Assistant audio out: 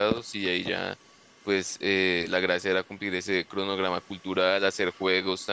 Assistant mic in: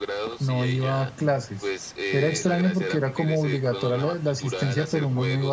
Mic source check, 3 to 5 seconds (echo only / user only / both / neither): both